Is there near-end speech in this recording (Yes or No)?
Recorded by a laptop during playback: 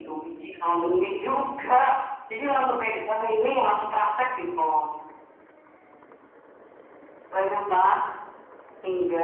No